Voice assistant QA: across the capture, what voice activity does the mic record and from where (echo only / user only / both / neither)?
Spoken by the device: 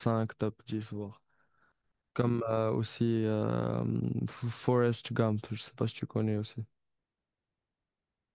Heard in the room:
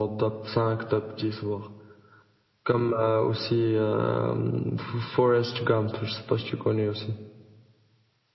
echo only